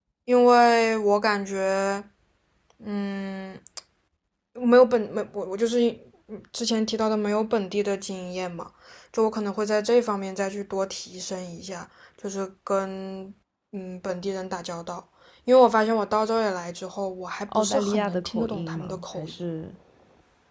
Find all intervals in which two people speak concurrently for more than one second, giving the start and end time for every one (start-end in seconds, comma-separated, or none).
17.5-19.3